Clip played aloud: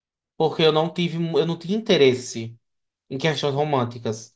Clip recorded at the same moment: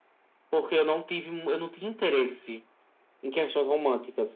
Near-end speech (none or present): none